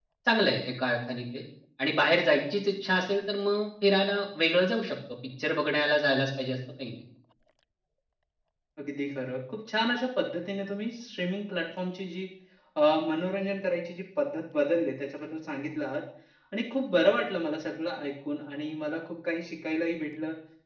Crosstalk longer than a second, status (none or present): none